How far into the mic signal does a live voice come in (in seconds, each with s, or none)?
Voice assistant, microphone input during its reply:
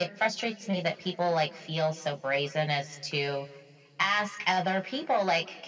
none